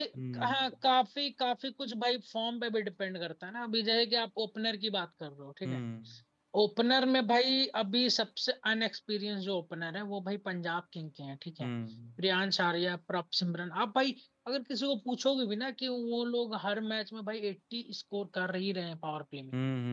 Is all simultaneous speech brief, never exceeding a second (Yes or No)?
Yes